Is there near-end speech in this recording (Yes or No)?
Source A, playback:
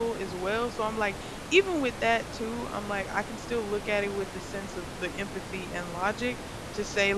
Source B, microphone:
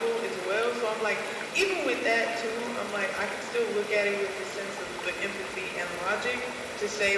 No